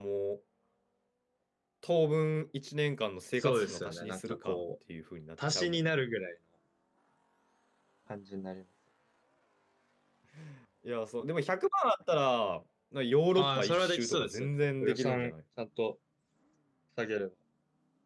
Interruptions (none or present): present